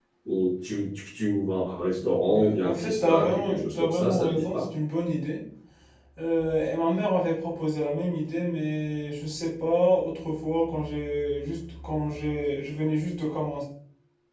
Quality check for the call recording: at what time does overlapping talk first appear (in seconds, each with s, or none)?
2.3 s